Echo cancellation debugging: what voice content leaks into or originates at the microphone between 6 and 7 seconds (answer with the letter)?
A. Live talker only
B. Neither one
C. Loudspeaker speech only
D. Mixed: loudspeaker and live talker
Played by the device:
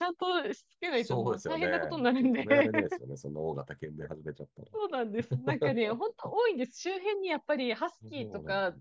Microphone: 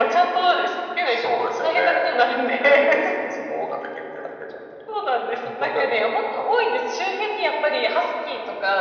C